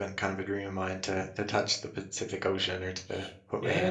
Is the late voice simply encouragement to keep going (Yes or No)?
No